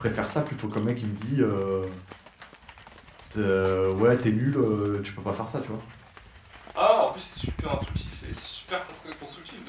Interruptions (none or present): none